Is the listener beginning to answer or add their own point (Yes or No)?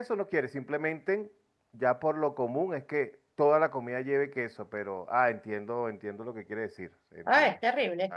Yes